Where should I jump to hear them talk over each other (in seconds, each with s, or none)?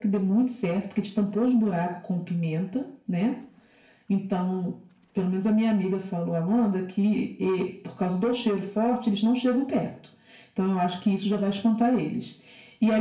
none